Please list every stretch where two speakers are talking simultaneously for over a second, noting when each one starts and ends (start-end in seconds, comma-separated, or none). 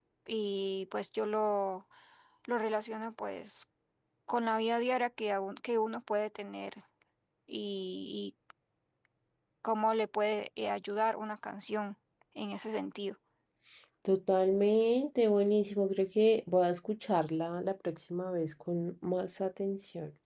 none